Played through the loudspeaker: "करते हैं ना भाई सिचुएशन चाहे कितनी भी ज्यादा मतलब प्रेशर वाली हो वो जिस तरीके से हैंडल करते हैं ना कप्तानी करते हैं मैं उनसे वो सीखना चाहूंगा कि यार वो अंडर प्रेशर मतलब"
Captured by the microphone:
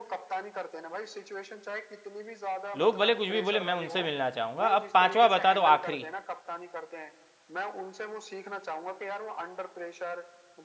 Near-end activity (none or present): present